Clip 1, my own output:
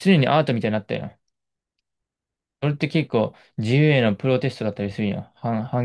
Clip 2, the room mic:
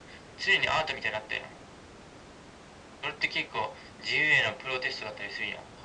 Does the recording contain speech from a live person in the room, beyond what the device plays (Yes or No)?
No